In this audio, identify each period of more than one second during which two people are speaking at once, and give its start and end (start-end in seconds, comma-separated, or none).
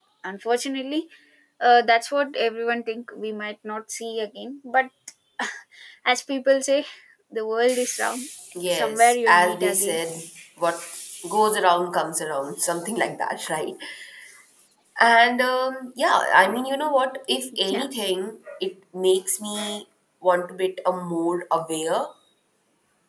8.7-10.0